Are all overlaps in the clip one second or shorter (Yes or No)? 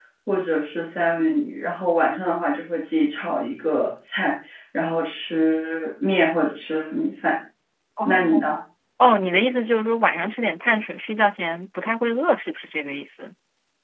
Yes